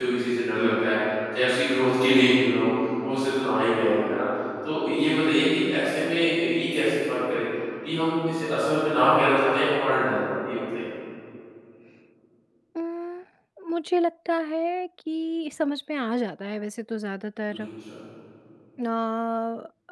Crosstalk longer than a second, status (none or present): none